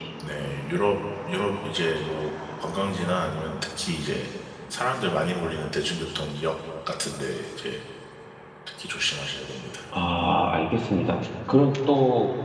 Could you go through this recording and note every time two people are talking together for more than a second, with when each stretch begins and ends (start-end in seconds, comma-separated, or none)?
none